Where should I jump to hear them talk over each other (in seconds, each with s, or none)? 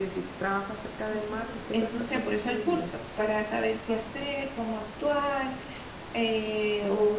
1.1 s